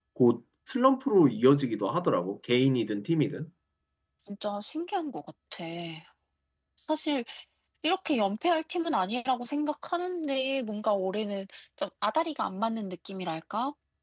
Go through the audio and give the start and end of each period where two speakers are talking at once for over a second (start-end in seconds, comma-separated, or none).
none